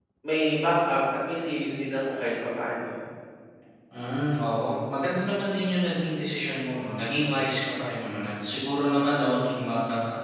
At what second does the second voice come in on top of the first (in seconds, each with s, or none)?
none